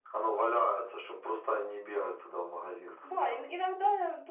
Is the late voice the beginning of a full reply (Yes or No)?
Yes